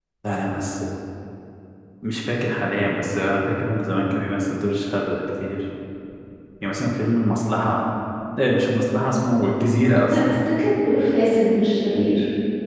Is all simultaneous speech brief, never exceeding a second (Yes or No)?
Yes